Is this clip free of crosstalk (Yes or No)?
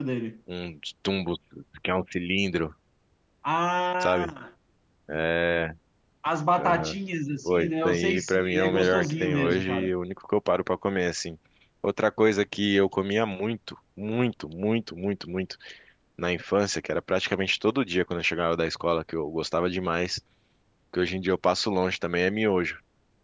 No